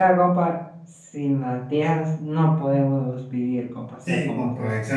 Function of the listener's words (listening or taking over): taking over